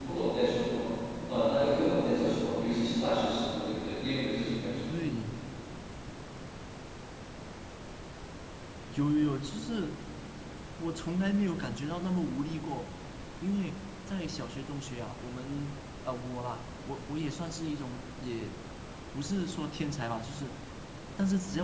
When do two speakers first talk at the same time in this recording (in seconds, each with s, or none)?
none